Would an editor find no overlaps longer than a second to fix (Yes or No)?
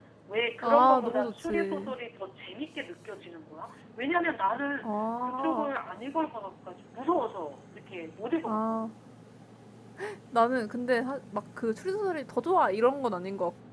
No